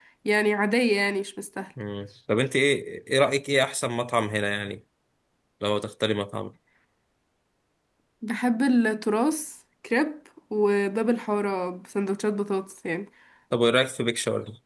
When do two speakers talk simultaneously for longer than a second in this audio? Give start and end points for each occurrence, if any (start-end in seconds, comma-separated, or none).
none